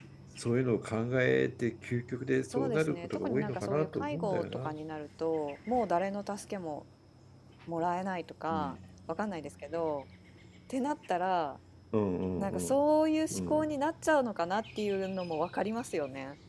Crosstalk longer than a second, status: present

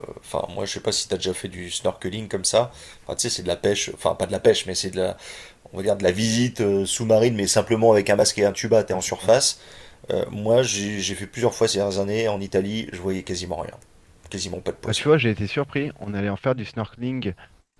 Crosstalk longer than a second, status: none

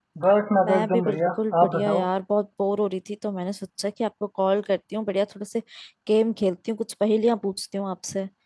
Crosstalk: present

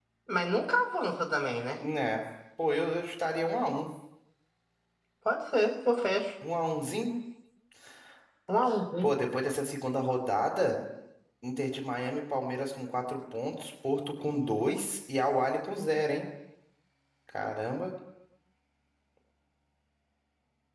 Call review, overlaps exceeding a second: none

